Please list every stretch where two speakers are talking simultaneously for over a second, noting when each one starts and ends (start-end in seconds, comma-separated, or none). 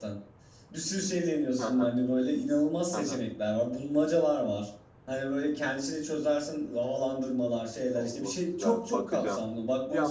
8.0-9.4